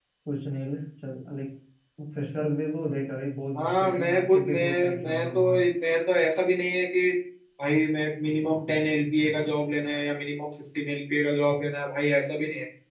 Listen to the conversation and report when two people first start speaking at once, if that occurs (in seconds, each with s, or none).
3.5 s